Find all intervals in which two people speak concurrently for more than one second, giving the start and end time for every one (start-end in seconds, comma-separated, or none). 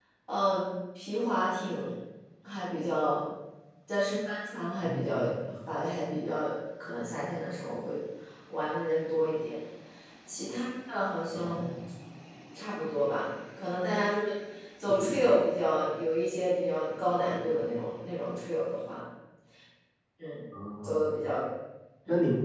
none